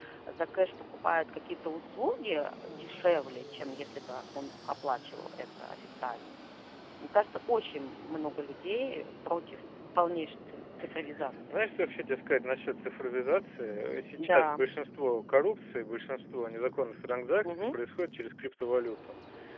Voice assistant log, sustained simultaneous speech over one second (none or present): none